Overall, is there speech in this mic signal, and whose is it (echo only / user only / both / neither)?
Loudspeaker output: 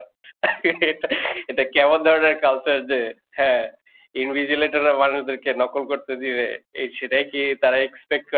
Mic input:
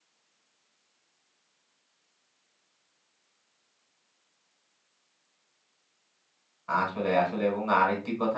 user only